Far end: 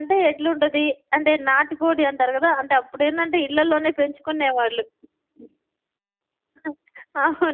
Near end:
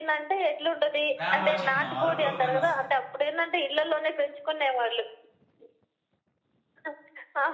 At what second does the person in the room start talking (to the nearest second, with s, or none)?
1 s